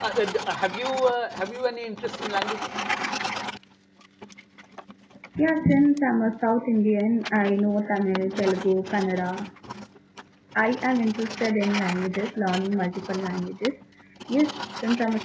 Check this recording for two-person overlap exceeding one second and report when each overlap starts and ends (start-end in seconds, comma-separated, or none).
none